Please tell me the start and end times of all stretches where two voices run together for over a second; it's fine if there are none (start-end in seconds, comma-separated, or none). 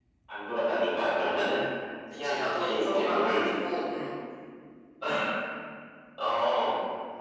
2.2-3.5